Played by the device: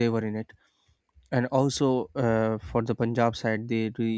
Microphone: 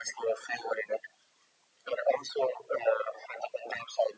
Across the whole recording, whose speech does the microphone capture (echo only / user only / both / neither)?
echo only